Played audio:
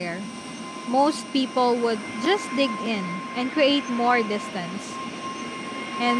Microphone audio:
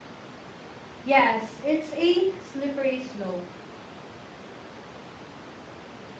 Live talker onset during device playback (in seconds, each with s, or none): 1.0 s